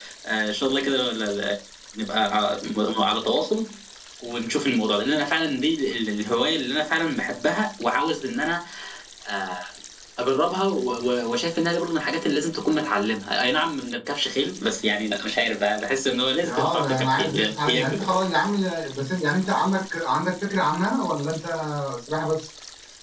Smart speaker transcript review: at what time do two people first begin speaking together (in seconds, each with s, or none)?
16.4 s